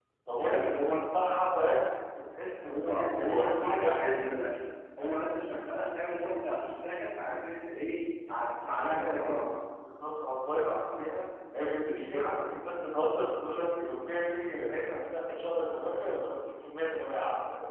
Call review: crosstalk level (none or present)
present